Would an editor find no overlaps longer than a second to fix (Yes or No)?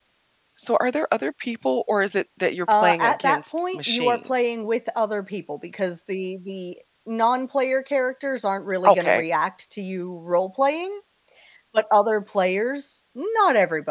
No